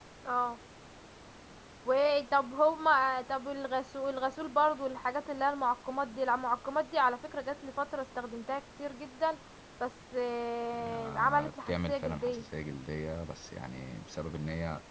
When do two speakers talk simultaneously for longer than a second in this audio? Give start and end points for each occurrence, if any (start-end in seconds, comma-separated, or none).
10.8-12.4